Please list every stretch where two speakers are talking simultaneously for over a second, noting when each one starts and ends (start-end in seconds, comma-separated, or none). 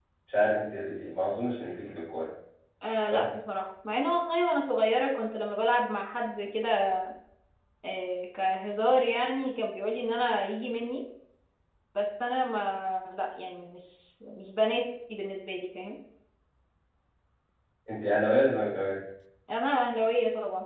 none